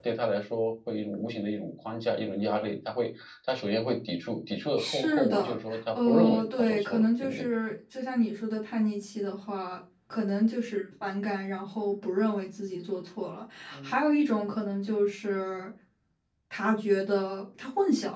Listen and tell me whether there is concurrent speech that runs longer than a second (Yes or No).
Yes